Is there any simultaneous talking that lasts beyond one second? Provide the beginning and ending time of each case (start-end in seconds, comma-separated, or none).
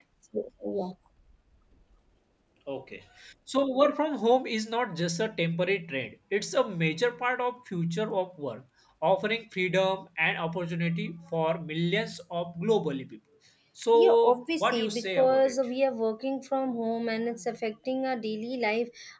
13.9-15.6